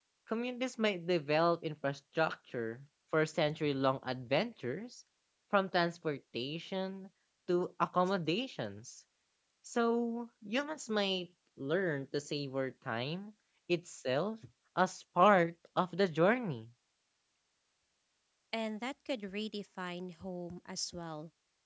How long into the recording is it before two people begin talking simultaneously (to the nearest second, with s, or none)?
none